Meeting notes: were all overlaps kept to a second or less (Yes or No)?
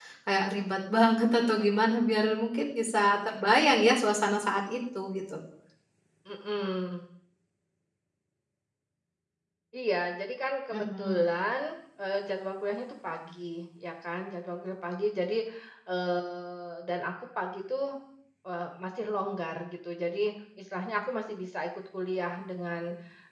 Yes